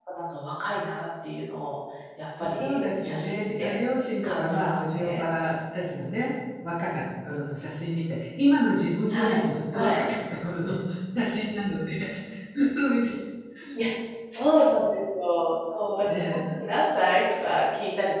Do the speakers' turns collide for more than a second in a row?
Yes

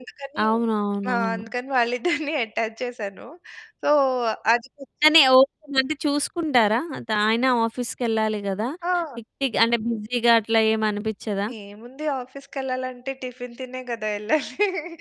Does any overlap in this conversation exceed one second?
No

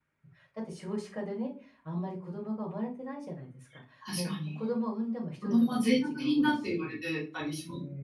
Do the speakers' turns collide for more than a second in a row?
Yes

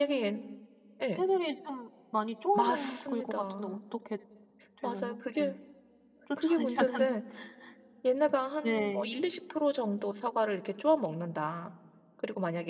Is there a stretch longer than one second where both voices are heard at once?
Yes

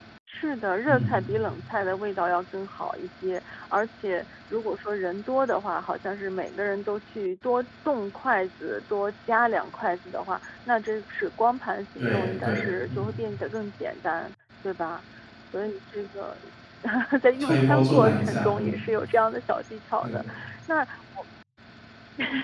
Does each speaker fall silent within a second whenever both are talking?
No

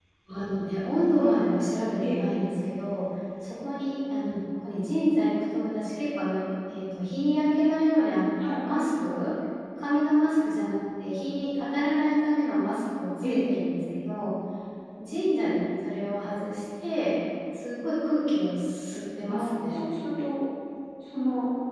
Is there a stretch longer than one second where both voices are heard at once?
No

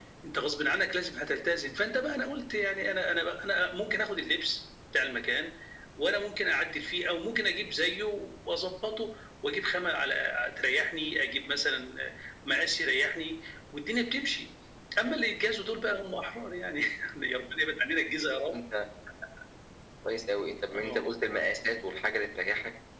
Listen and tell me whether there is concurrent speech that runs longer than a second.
No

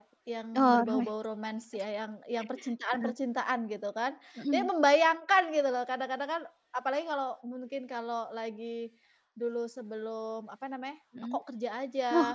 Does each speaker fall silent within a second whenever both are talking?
Yes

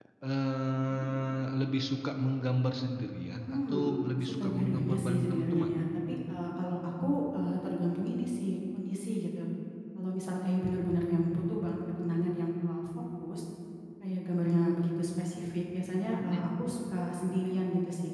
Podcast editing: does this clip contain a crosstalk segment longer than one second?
Yes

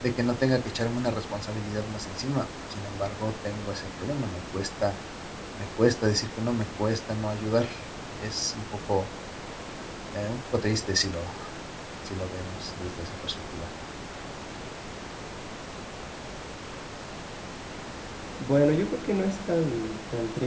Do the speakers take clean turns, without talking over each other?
Yes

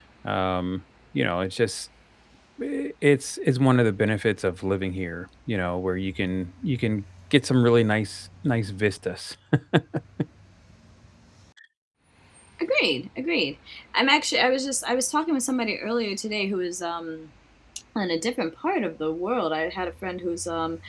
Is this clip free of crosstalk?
Yes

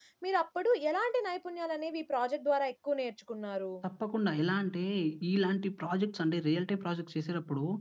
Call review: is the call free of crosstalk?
Yes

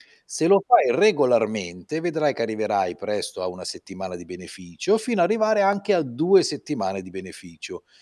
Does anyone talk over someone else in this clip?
No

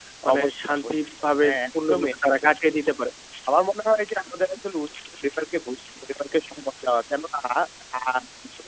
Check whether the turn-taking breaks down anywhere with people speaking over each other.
Yes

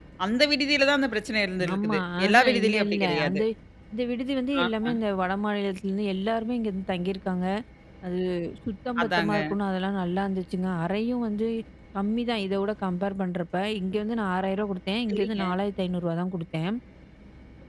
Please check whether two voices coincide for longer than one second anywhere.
Yes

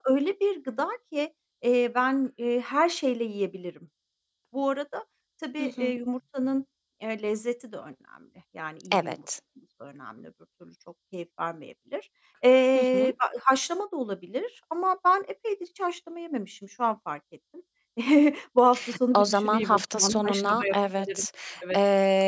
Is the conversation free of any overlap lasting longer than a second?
No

